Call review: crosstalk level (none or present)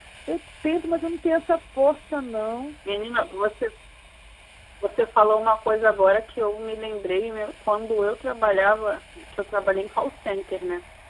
none